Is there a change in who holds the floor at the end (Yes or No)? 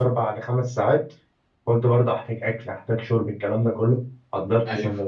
No